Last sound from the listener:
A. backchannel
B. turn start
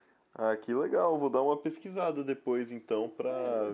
B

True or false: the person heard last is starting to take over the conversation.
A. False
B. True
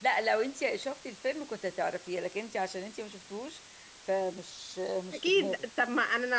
B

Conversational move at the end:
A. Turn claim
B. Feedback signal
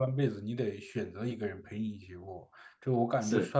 B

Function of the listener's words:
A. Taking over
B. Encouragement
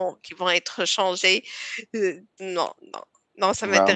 A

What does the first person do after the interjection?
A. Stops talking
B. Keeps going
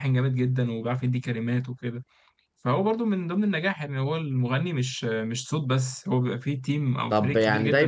A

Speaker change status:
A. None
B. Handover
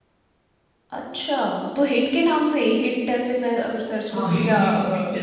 B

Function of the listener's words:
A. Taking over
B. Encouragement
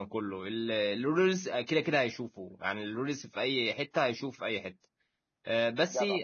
B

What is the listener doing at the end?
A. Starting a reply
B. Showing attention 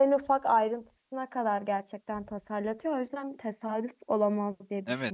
A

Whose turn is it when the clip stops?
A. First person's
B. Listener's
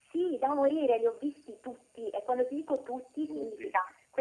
A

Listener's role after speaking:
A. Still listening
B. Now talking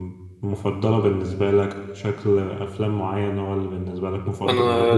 B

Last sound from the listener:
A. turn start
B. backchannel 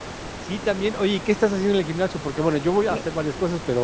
B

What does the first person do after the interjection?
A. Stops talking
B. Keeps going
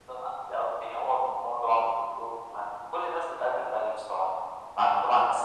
B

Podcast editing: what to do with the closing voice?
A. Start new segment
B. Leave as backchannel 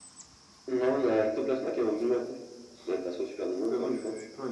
A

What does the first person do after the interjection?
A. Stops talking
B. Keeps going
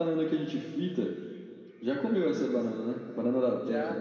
A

